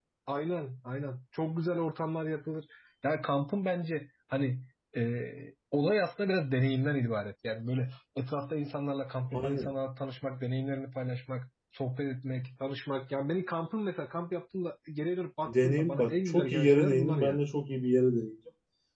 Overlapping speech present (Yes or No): Yes